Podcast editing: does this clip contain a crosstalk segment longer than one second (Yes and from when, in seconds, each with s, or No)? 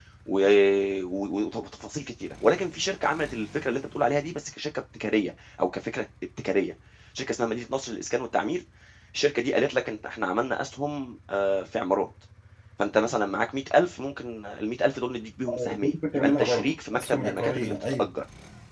Yes, from 15.5 s